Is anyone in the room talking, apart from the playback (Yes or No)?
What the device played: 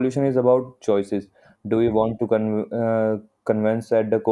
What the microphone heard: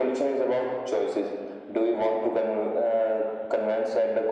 No